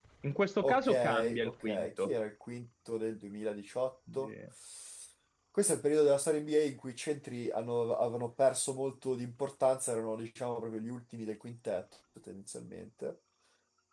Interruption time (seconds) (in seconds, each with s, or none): 0.6 s